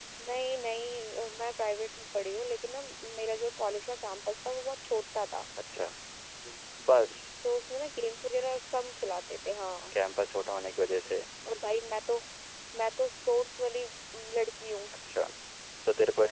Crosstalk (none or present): none